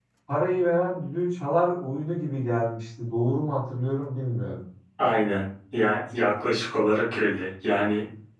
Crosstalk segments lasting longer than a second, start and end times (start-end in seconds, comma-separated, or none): none